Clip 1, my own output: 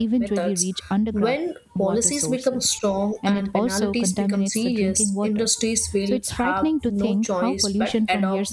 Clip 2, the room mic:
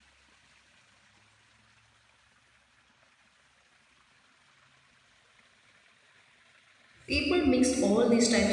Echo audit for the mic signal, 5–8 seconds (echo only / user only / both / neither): user only